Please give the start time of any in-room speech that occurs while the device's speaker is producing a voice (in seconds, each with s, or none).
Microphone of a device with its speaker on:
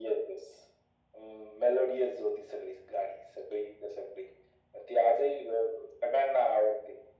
none